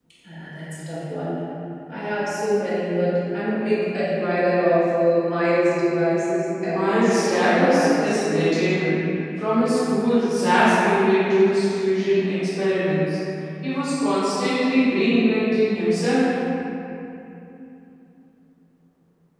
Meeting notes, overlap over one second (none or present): present